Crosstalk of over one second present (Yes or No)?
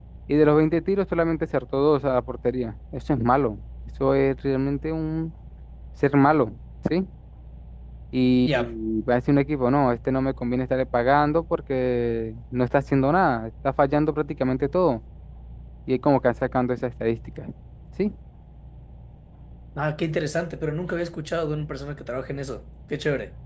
No